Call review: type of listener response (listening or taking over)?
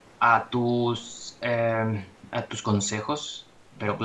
taking over